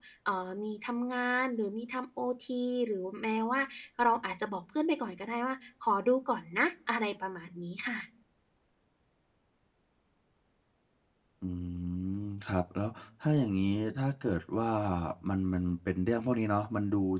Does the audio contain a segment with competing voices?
No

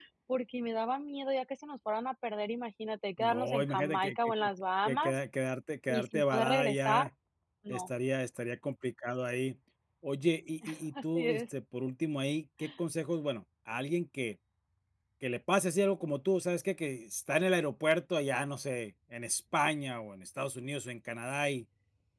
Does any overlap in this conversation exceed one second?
Yes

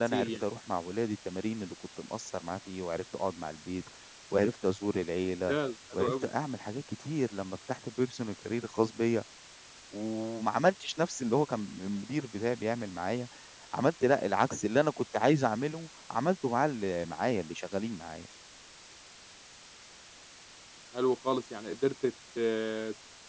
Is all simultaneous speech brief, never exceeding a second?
Yes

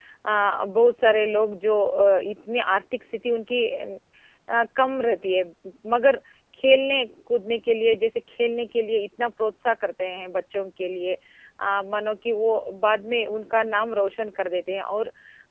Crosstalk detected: No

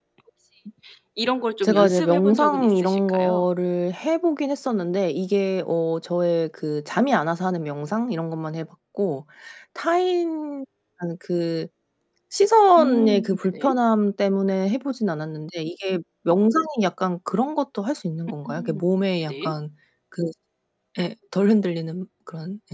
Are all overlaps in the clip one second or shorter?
No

